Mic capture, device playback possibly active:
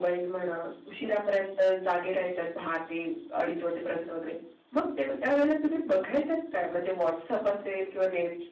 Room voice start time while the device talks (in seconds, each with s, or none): none